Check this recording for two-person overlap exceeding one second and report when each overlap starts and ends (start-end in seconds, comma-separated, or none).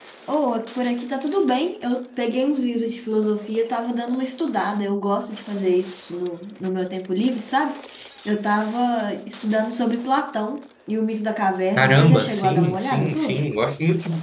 11.8-13.5